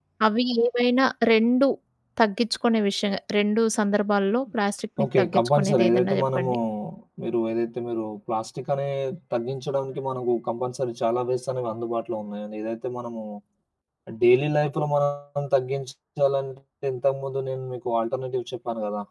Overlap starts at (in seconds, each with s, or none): 5.0 s